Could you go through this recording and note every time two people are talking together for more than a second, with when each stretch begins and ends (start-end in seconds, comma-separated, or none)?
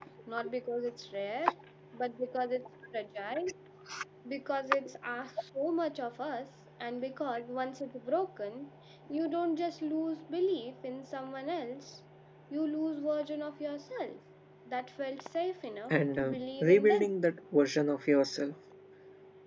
15.9-17.2